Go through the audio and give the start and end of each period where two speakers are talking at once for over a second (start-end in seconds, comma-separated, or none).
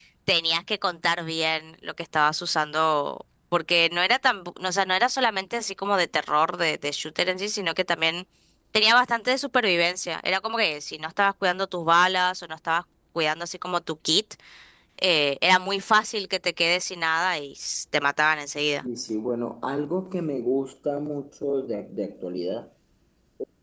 none